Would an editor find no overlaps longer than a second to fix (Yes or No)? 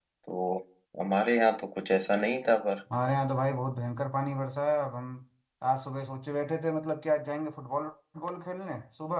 Yes